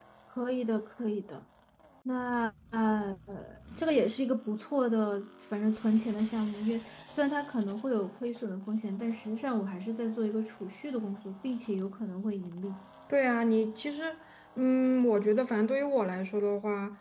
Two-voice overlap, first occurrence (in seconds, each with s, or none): none